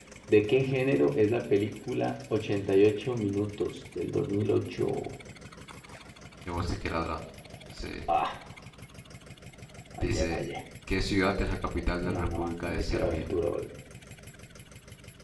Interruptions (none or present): present